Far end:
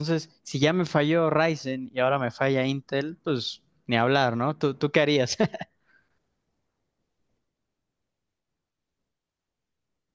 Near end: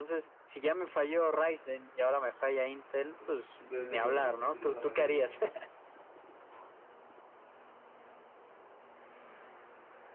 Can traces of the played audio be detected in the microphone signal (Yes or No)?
Yes